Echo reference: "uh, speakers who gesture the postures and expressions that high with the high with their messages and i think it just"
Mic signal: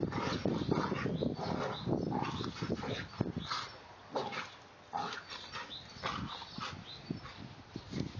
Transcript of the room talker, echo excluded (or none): none